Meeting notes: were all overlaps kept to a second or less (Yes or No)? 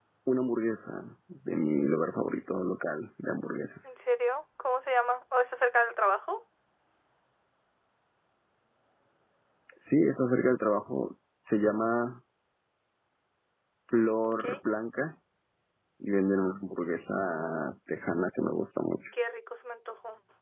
Yes